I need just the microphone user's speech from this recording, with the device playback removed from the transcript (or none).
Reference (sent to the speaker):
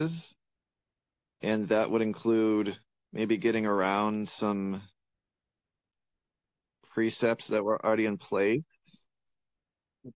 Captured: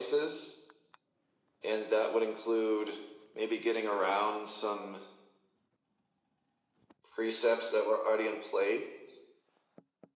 none